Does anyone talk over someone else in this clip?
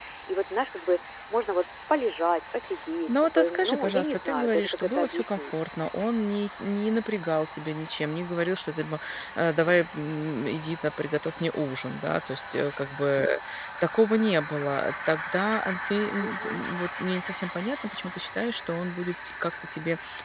Yes, from 3.1 s

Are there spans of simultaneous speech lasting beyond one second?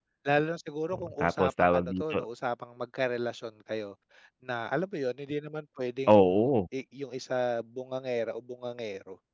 Yes, from 0.9 s

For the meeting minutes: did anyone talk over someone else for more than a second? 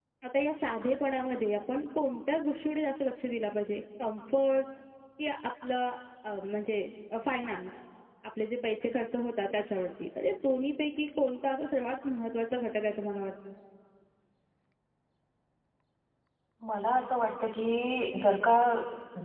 No

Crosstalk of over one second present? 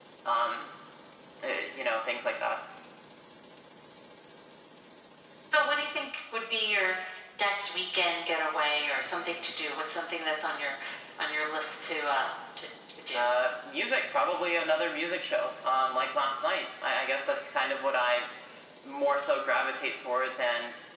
No

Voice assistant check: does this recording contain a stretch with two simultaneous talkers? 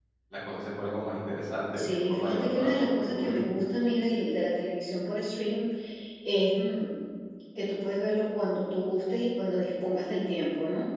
Yes, from 1.8 s

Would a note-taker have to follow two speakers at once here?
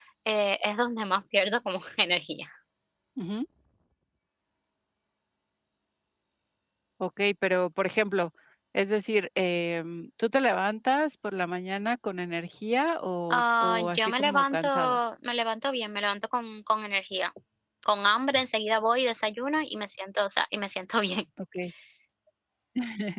Yes, from 13.3 s

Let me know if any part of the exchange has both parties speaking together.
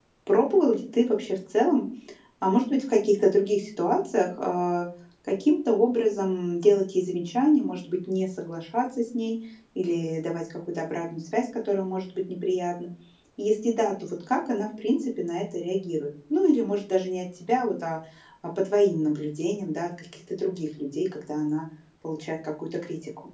No

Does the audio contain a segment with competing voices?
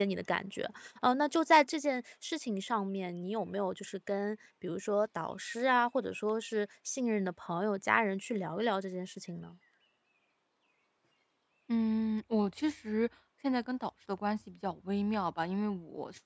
No

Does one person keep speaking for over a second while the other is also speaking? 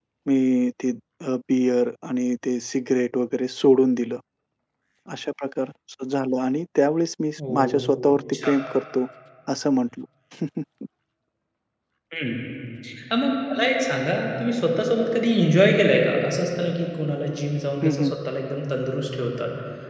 No

